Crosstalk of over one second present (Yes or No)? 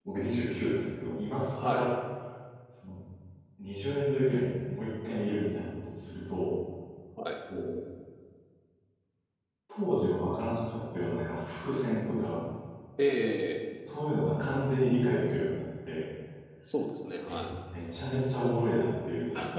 No